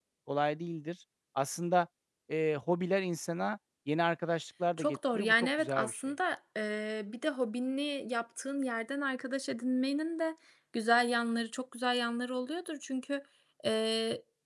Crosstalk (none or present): present